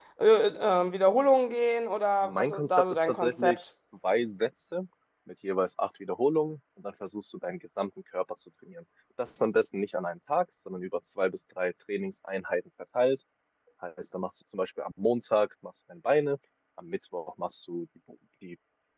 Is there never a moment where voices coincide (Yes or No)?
No